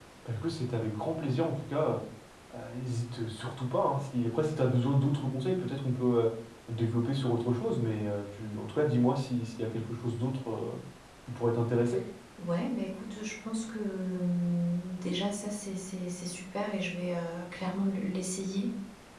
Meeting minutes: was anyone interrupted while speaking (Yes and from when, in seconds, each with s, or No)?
No